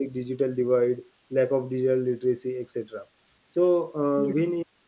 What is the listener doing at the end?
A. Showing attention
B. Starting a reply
A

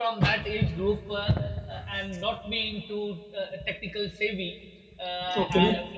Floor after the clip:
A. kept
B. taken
A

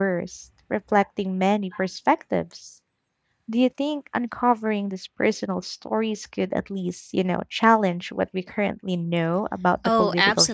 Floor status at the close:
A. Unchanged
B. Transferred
B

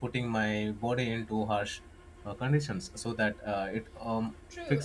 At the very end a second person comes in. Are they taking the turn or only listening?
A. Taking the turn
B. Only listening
A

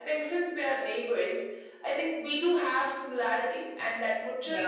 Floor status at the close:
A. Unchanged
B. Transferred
A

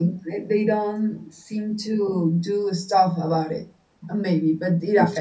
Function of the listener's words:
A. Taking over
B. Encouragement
B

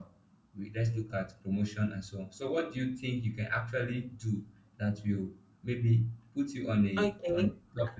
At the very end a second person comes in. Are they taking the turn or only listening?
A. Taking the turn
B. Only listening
A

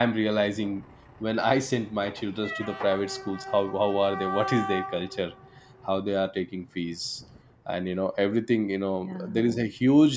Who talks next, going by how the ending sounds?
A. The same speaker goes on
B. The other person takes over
A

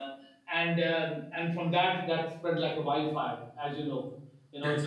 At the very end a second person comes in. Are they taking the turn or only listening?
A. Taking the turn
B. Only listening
B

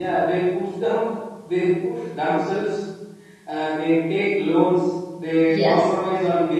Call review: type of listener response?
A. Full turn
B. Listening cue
B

